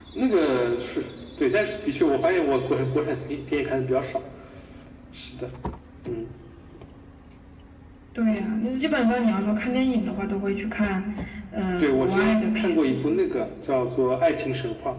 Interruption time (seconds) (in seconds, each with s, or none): 11.8 s